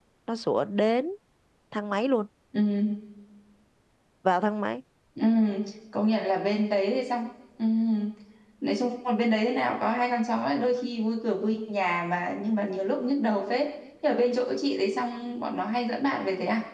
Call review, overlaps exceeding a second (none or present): none